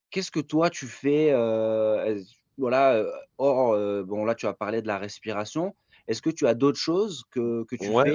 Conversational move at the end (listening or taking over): taking over